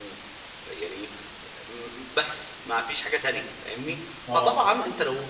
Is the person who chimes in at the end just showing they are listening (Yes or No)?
Yes